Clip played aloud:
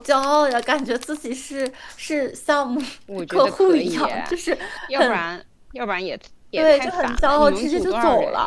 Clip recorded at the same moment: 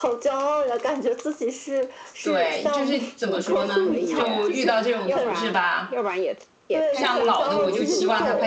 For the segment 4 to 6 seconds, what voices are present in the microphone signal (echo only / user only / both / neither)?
both